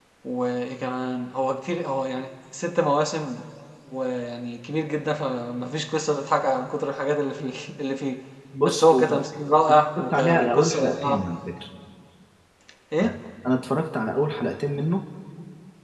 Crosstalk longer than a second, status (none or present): present